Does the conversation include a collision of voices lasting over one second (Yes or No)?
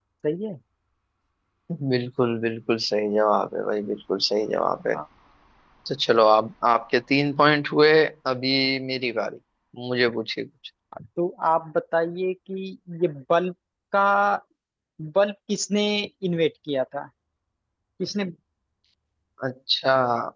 No